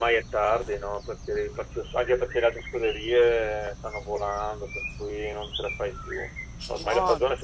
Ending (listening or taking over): listening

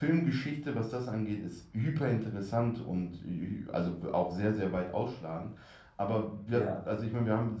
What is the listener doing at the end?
listening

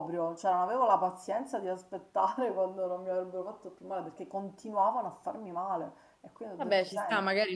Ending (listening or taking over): taking over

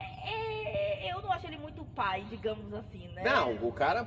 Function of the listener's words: taking over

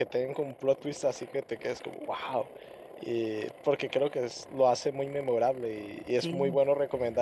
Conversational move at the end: listening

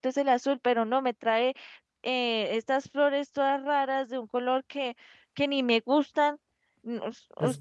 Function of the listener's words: taking over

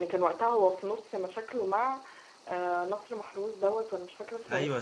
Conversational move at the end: taking over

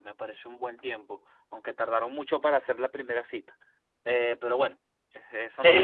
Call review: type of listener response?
taking over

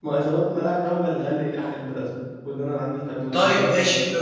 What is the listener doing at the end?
taking over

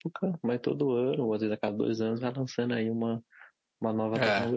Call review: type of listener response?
taking over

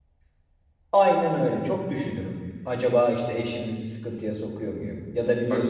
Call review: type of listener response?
listening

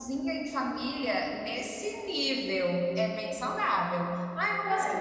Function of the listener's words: listening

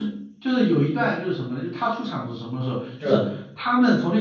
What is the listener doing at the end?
listening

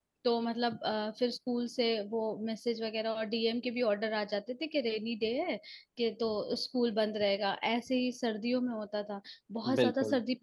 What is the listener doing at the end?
listening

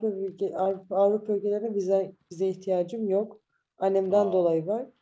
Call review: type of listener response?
listening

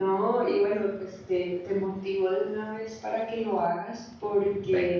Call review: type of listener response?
listening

